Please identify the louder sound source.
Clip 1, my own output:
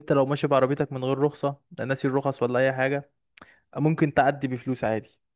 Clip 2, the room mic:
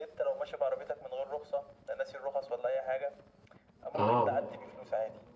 user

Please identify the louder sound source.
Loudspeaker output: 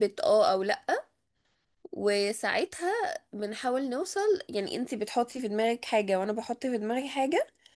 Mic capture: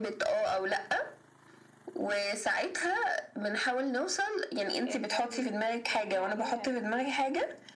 echo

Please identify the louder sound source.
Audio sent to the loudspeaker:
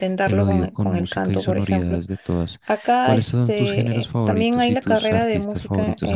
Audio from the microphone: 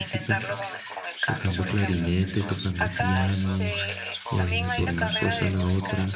user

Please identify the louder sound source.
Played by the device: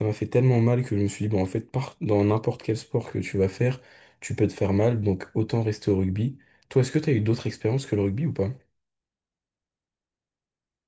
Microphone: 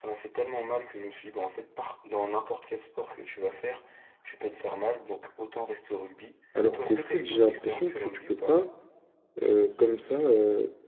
user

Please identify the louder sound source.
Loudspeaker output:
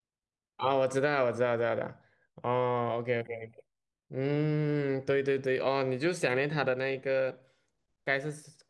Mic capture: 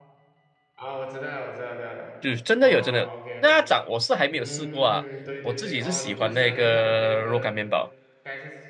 user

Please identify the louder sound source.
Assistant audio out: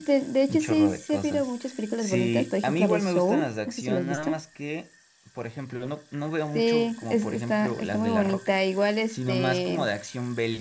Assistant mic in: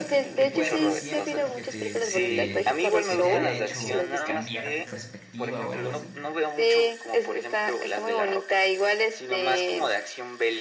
echo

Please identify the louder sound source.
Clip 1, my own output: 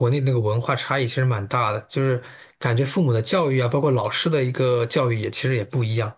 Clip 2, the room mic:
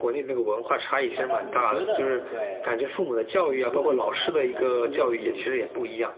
echo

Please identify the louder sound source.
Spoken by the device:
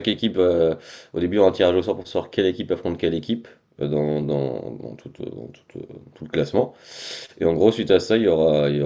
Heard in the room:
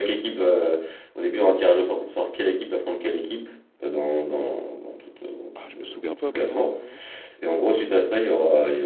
echo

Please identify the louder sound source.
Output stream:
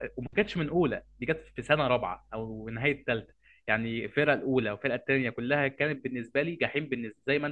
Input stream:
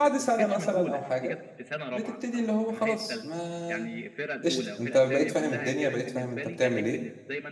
user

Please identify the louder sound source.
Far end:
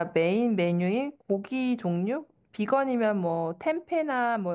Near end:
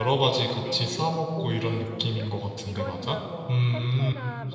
user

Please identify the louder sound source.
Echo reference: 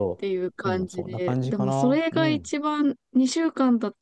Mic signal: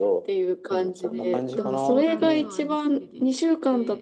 echo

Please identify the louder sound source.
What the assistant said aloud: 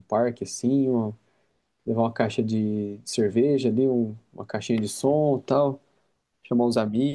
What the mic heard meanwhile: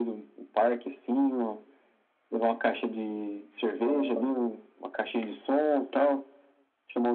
echo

